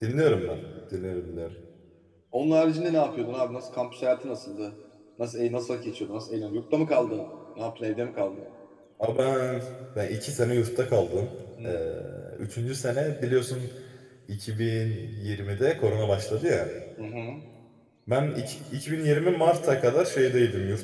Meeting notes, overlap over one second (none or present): none